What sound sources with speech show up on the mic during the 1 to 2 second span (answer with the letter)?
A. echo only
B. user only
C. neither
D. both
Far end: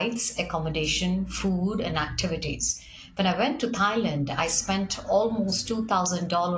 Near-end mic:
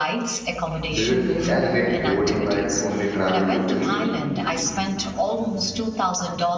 D